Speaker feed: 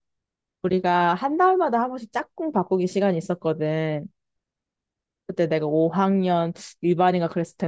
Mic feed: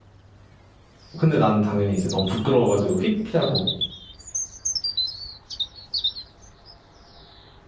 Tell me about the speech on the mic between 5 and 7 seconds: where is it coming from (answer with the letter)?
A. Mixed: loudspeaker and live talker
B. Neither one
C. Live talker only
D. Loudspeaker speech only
B